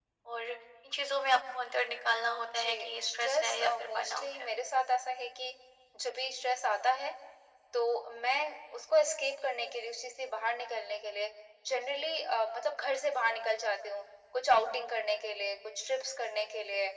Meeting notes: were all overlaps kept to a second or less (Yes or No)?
No